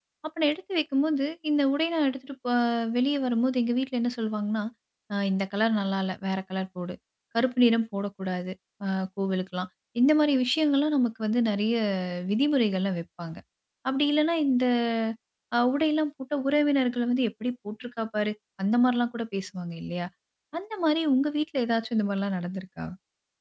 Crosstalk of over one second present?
No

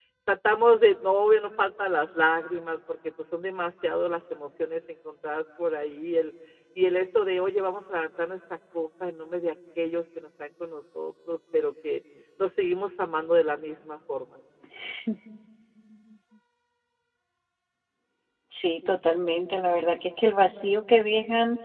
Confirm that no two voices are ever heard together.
Yes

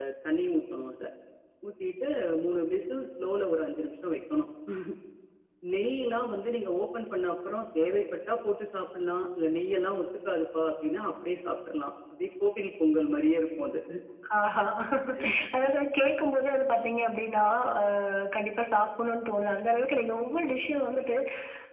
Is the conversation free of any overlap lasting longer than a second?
Yes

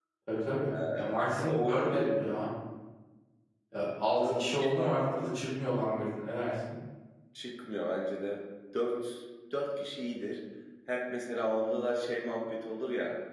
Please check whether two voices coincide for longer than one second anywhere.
Yes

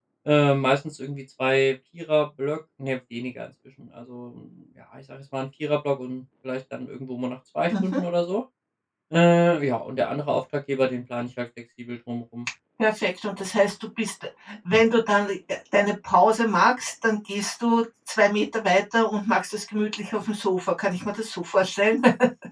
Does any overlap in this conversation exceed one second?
No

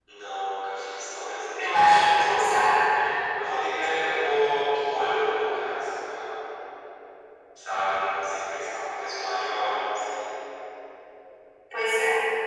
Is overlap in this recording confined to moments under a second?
Yes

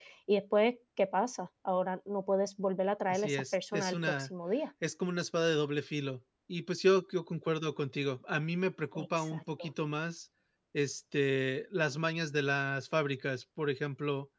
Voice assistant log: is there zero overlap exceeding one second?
No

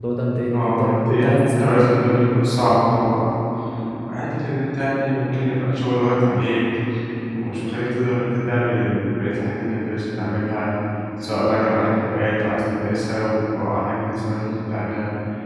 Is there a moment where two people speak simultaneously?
Yes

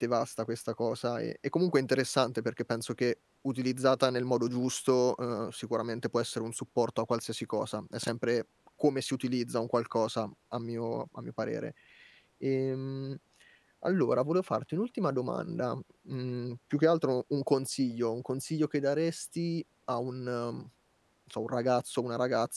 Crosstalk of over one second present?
No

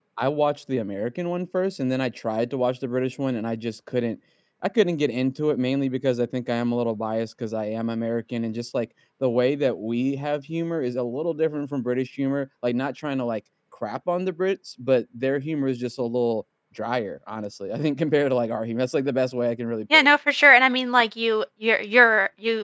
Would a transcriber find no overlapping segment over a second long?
Yes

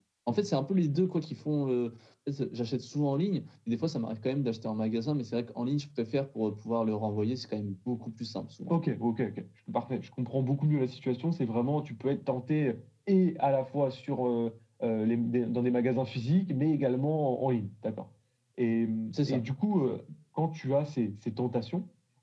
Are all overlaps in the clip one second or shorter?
Yes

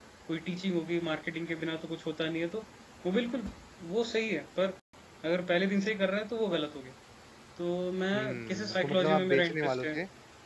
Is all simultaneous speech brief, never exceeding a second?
No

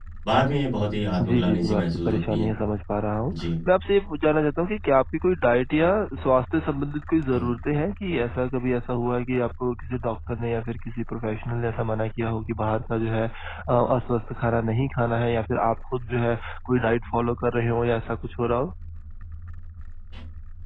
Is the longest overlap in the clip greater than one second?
Yes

